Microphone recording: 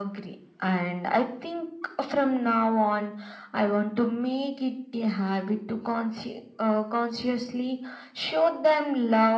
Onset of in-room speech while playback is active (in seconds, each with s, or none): none